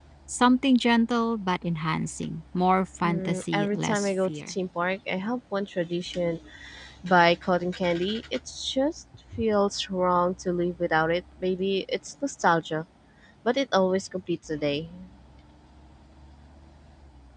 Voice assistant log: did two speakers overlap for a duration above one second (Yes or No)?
Yes